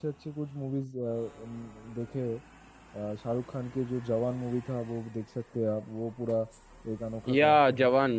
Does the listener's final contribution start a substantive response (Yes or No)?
Yes